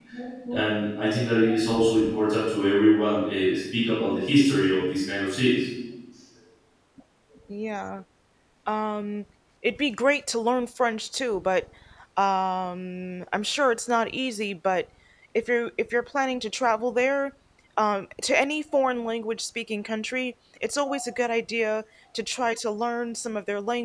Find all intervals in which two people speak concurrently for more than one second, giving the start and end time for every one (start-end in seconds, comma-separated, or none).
none